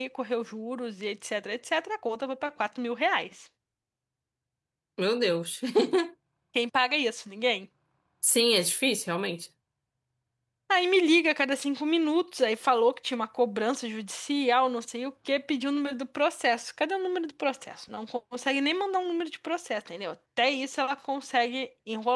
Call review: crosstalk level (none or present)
none